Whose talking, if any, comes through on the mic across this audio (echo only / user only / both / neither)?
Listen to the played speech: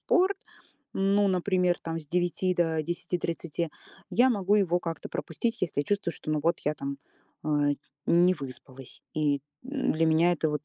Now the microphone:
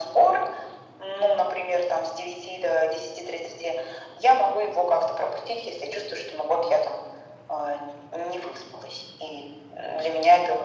echo only